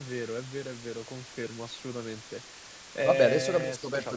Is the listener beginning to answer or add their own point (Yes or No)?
Yes